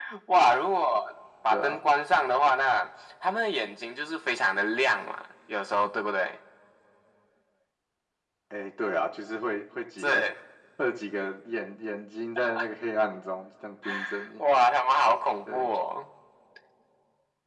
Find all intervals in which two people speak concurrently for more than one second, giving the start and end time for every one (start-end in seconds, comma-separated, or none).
none